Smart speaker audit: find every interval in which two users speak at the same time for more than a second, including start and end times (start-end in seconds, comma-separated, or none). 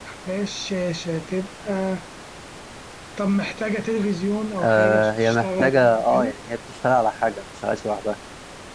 4.6-6.3